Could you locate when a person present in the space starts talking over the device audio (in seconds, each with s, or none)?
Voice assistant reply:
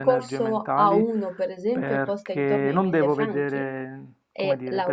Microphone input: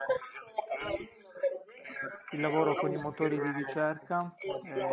2.3 s